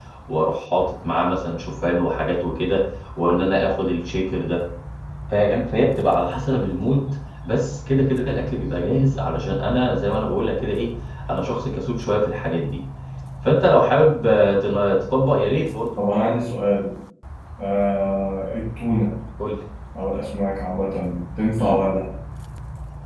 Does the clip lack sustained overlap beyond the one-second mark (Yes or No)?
Yes